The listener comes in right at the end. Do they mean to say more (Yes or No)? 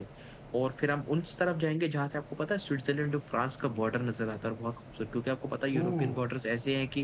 No